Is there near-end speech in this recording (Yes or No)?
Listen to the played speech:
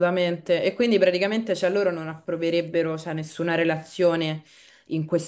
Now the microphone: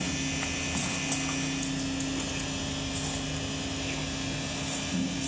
No